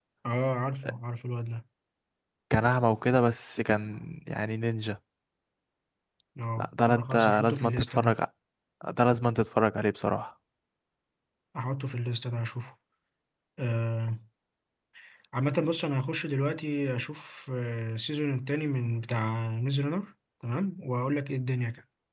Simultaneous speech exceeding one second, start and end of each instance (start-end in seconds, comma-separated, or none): 6.6-8.1